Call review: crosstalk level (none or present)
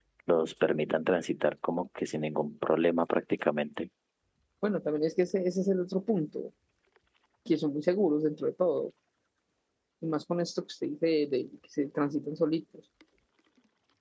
none